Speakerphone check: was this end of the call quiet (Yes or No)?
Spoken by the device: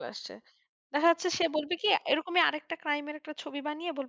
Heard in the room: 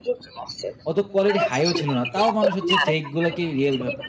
No